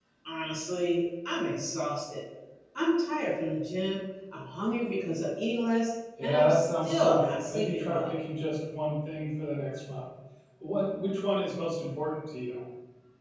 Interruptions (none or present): present